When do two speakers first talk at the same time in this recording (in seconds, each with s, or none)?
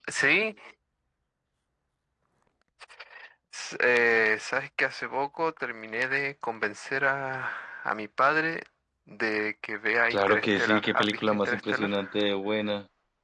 10.1 s